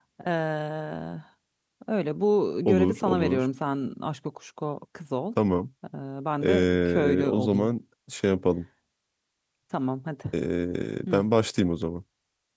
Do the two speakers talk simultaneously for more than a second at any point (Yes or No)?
Yes